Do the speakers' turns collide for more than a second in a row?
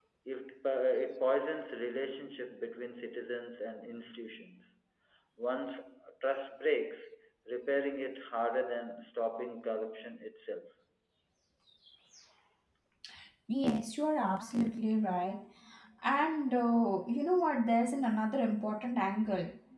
No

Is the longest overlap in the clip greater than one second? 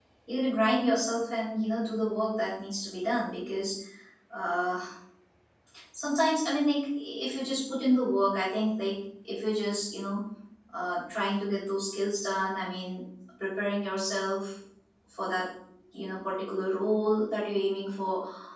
No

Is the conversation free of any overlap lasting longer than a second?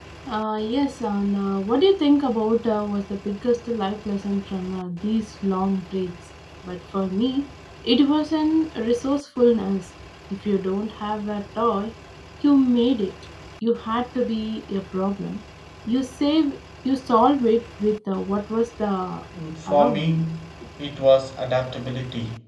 Yes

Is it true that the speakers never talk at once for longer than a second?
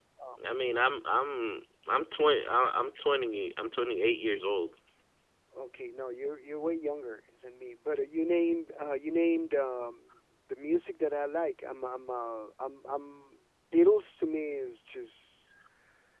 Yes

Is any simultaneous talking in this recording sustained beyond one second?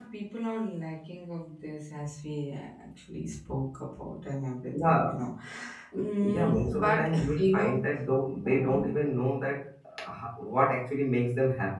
Yes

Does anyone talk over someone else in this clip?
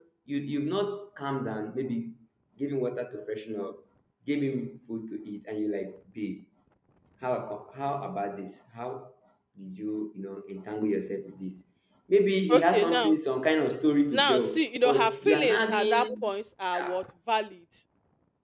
Yes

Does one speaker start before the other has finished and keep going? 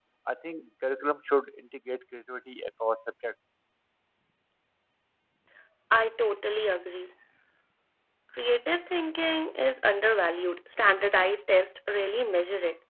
No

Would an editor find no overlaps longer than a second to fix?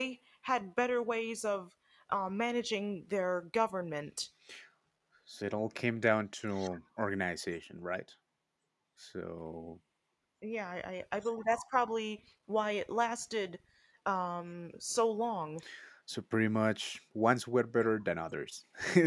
Yes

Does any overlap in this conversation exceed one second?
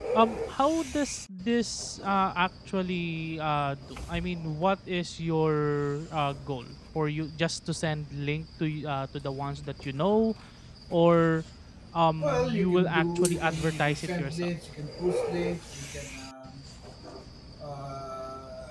Yes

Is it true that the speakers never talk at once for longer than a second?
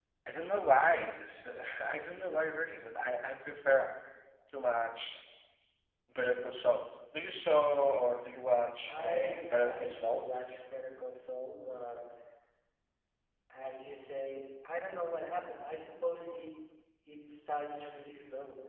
No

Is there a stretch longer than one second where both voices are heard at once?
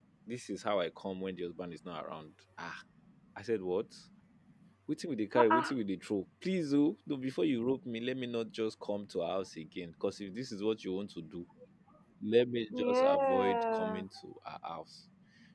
Yes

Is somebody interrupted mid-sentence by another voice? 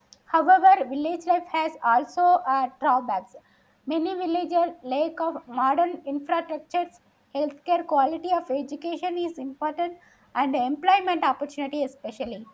No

